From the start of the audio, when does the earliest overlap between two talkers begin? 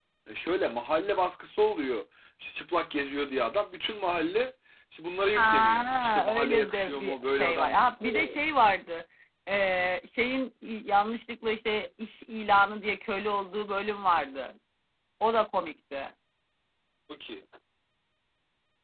5.4 s

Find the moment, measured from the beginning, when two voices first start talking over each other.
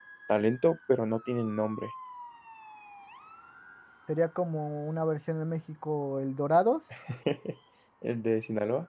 none

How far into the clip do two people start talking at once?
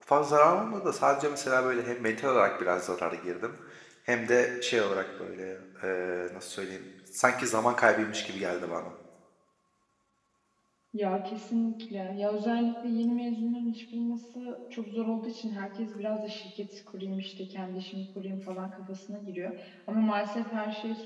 none

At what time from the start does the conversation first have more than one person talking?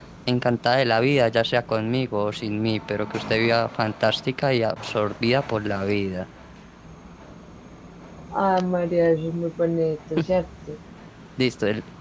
none

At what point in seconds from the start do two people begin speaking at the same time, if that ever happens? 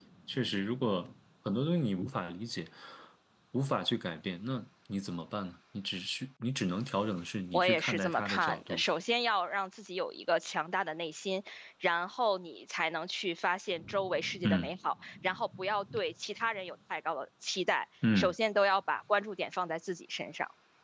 7.5 s

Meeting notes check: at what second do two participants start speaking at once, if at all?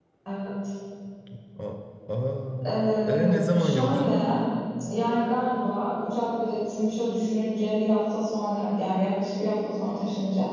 2.6 s

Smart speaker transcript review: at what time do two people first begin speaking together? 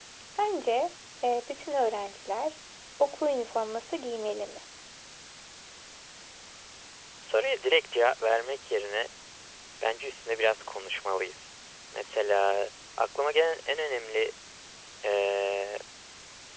none

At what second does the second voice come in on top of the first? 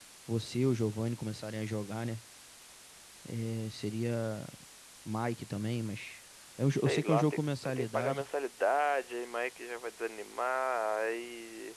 6.7 s

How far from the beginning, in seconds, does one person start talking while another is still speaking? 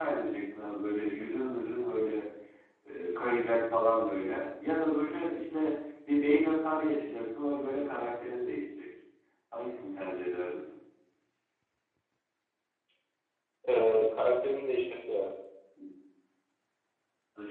none

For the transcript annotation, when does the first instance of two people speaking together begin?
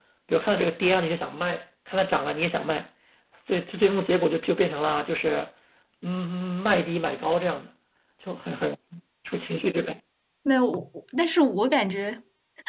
none

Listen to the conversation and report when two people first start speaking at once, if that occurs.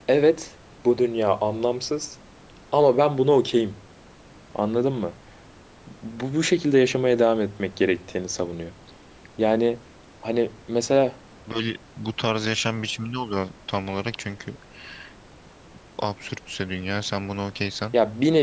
none

